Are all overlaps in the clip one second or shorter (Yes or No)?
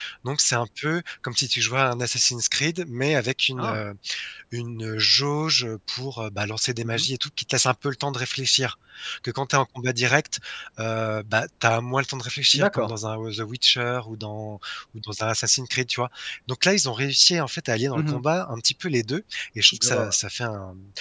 Yes